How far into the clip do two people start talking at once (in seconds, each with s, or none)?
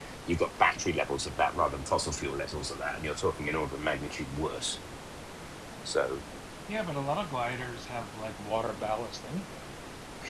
none